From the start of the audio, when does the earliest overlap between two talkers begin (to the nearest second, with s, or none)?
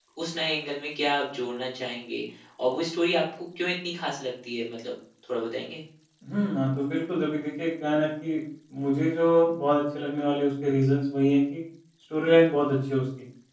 none